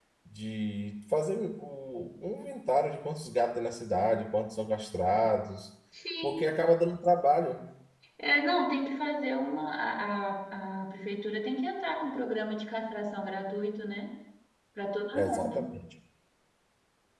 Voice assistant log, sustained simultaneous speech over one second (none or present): none